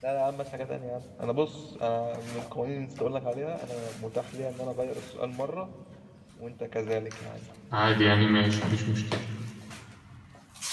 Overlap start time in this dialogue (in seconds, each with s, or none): none